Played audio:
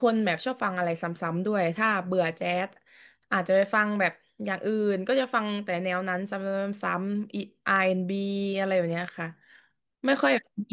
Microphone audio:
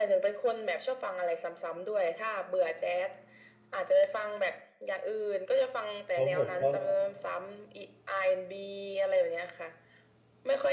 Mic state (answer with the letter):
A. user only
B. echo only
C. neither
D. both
D